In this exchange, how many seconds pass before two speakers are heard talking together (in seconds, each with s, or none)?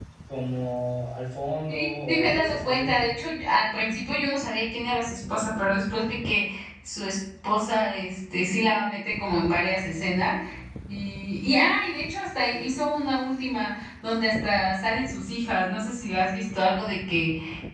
1.7 s